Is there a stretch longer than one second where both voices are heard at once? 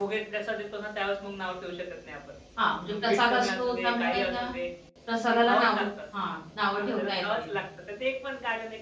Yes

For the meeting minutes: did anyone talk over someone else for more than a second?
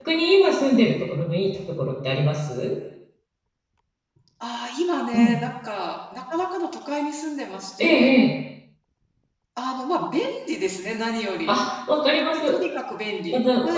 No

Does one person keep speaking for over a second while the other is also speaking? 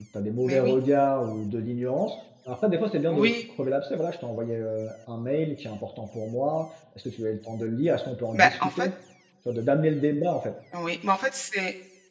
No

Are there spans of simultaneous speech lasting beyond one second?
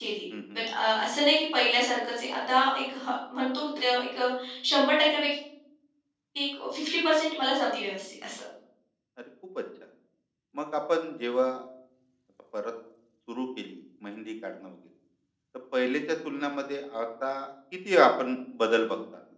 No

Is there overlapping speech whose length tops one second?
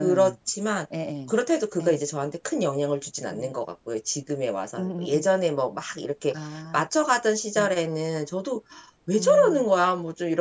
No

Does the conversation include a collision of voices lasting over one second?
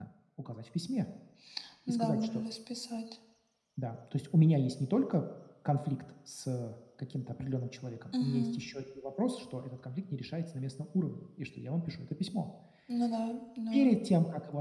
No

